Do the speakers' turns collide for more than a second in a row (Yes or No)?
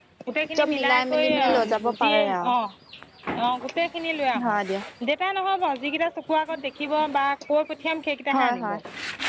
Yes